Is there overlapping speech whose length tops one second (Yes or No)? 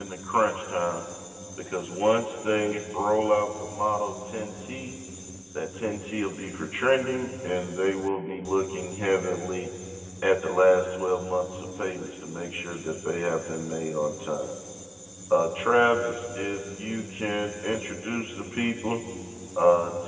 No